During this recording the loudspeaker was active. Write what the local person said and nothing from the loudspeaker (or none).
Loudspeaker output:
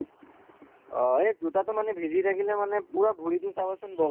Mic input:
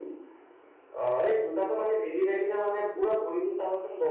none